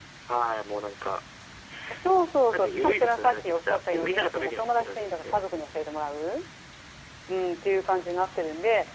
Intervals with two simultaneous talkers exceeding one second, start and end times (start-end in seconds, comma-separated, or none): 2.5-5.4